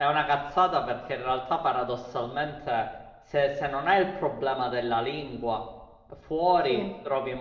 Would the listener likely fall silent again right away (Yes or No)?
Yes